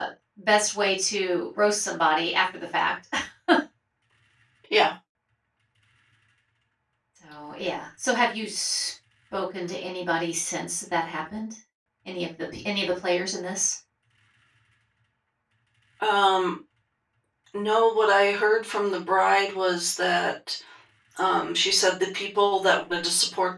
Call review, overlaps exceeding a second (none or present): none